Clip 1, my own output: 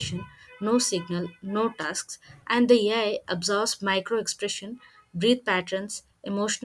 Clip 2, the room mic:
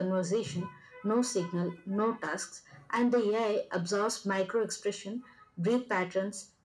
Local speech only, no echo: none

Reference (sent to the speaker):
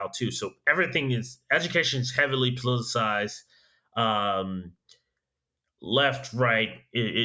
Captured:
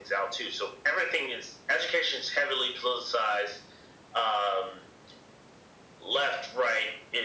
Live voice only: none

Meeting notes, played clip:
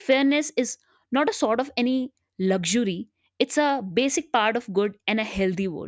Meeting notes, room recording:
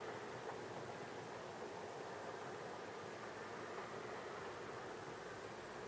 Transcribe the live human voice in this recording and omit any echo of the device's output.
none

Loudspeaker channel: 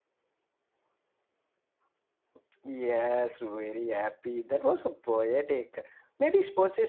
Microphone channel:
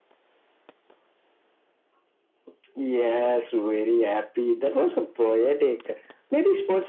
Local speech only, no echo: none

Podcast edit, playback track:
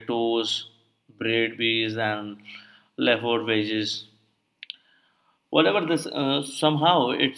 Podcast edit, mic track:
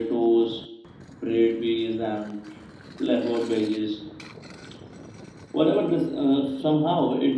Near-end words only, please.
none

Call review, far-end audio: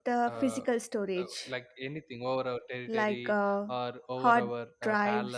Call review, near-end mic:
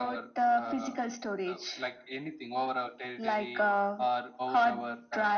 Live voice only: none

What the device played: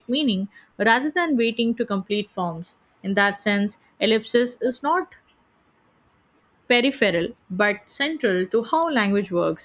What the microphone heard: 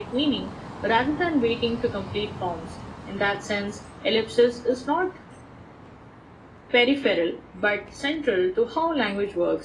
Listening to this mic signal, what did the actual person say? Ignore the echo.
none

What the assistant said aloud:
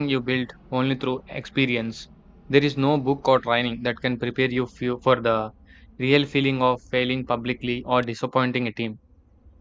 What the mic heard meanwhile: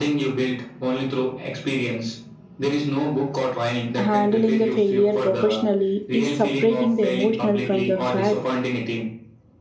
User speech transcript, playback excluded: handling the failure professionally is separating the emotional from the fact.

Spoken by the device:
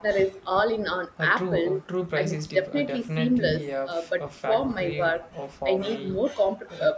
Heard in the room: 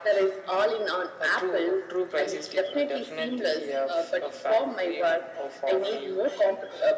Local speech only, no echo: none

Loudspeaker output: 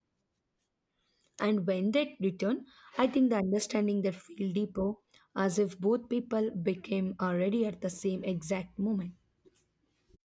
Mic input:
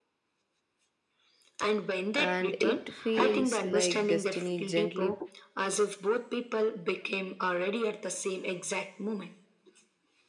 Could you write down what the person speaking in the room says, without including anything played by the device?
and it feels like destiny gently

